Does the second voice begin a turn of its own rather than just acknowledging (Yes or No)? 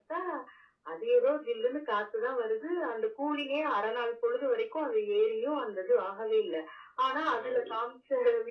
No